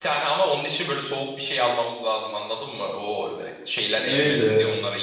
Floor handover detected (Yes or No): Yes